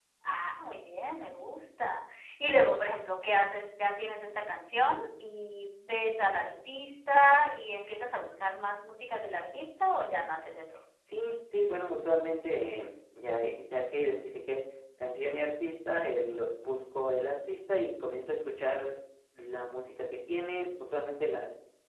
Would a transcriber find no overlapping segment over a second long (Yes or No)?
Yes